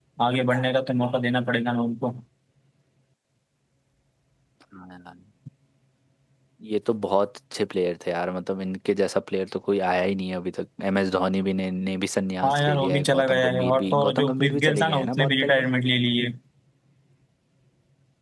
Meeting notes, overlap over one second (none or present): present